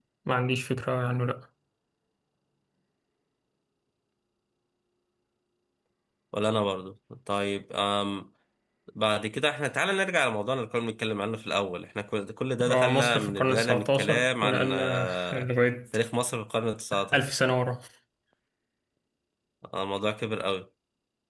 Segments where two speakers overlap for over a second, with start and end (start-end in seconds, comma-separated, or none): 12.7-15.5